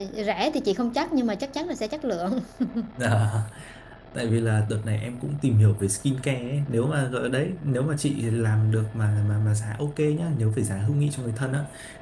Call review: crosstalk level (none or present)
none